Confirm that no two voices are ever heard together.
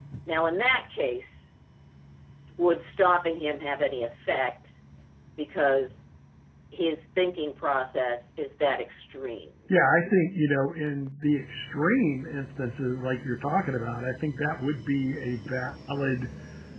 Yes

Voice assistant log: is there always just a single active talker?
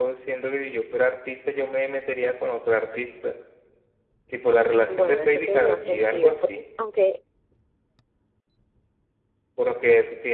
No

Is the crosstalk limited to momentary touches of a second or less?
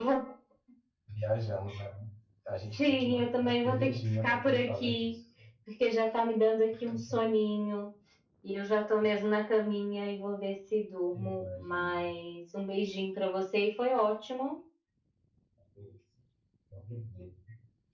No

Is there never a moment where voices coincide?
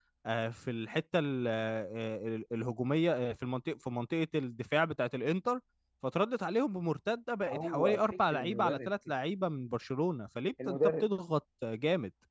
No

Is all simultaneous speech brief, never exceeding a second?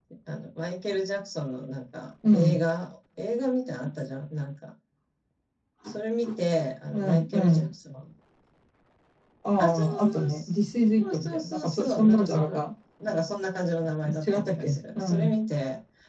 No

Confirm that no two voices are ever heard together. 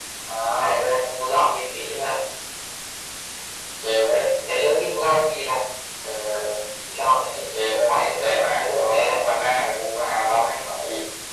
No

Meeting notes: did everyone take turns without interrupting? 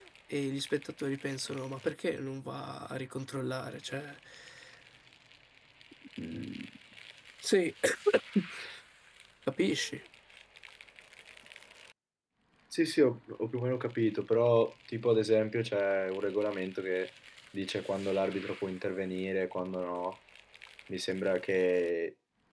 Yes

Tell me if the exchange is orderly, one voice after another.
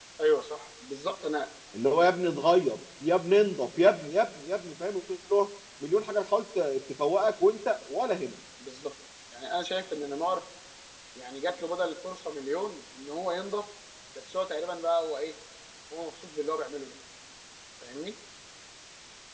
Yes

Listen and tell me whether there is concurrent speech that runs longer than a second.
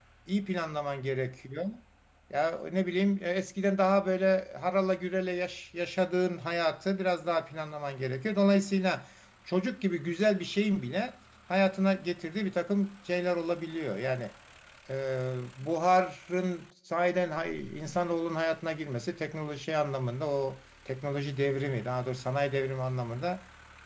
No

